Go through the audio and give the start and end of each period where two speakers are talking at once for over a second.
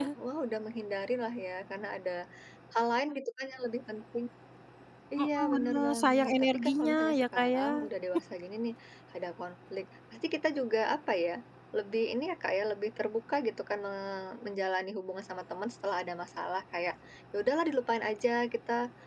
5.2-7.6

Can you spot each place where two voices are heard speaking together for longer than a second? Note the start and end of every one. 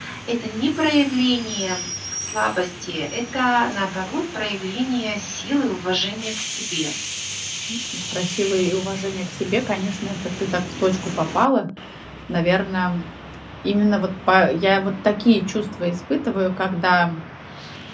none

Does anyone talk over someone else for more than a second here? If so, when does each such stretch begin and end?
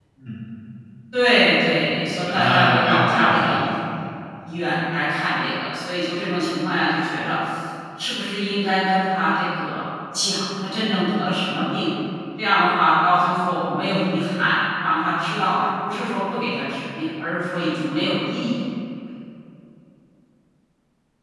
2.3-3.8

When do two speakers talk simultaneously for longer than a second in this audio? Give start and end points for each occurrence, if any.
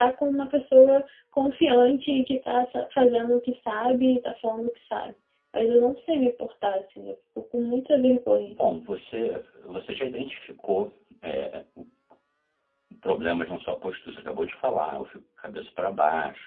none

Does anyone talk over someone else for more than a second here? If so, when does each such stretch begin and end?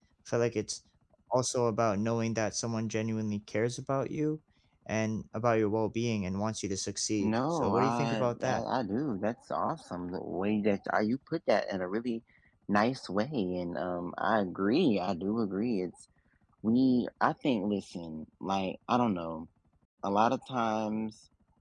7.2-8.6

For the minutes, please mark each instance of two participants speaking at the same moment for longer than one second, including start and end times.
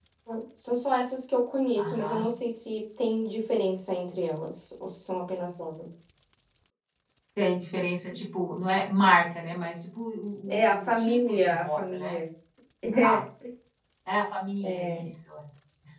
10.5-12.2

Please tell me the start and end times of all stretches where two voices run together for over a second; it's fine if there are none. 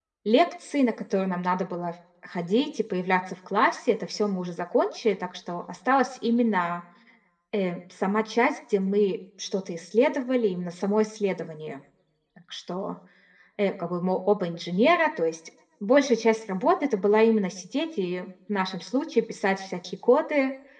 none

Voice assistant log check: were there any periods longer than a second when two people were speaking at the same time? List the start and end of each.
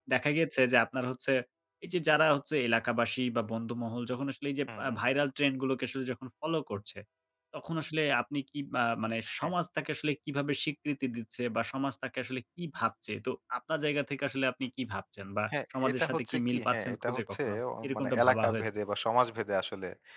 15.8-18.7

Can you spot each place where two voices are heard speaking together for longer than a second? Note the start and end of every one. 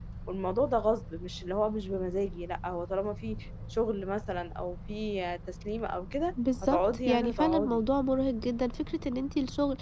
6.6-7.8

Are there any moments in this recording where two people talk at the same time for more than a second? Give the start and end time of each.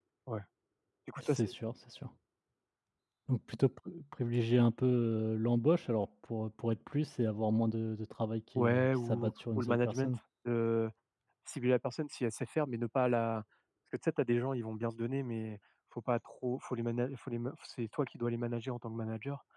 8.6-10.1

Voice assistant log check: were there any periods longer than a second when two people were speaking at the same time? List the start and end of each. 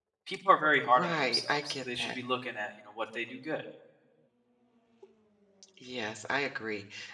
0.8-2.1

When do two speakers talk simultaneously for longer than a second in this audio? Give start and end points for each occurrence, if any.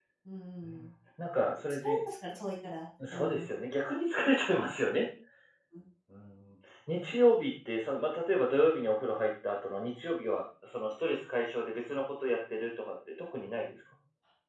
none

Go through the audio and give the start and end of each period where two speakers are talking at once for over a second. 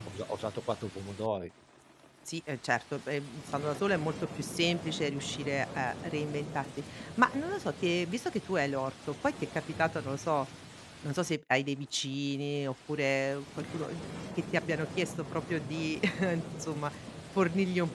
none

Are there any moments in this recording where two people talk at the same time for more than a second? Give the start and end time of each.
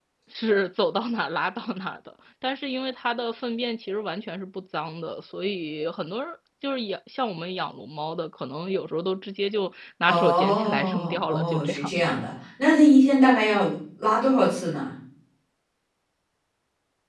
10.1-12.2

